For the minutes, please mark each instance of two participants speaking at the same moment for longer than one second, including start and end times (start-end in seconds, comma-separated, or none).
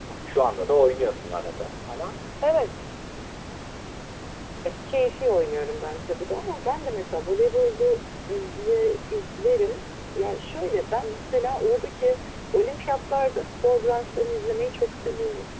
none